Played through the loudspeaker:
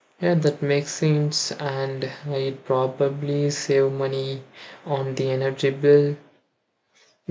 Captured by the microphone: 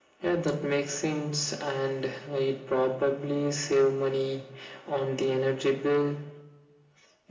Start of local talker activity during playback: none

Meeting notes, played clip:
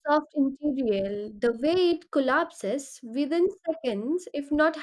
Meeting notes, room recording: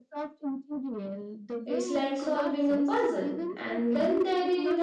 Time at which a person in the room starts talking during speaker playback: 2 s

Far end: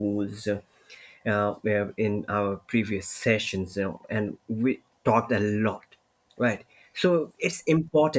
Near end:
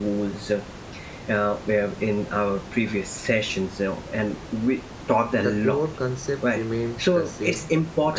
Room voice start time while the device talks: 5 s

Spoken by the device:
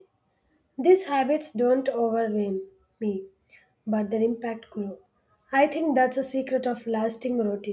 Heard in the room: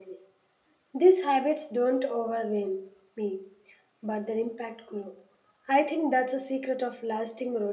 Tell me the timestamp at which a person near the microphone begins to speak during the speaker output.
none

